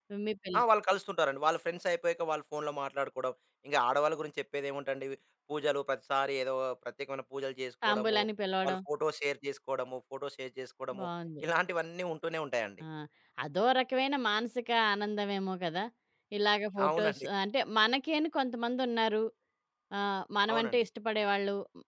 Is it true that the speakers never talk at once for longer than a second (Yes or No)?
Yes